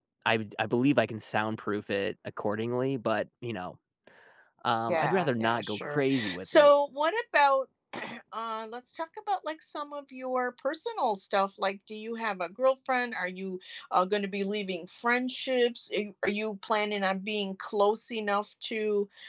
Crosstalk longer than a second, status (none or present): present